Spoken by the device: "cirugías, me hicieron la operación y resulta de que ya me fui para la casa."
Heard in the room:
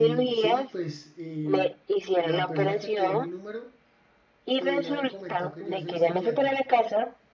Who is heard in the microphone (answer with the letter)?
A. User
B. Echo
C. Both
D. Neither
C